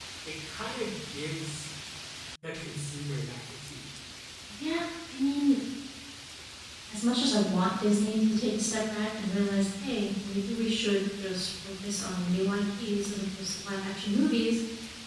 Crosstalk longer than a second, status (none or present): none